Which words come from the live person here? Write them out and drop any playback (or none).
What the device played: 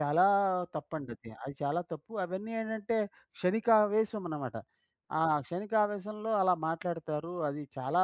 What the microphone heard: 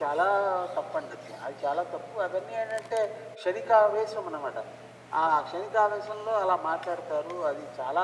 none